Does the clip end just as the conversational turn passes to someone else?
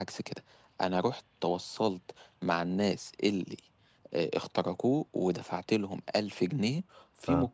No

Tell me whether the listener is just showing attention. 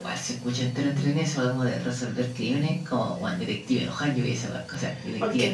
No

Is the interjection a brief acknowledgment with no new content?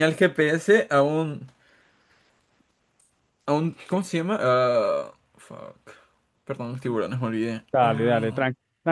No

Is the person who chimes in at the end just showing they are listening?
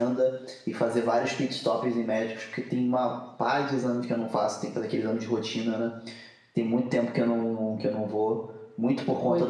Yes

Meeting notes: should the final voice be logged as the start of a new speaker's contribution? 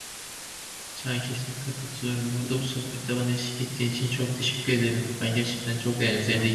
No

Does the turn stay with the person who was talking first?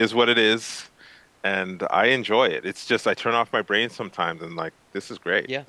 No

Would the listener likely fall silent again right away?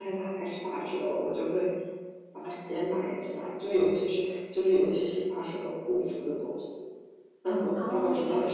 No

